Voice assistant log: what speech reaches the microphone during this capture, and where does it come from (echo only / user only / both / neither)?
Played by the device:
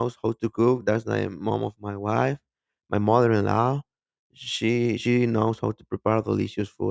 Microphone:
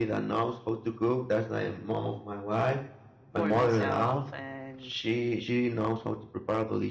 both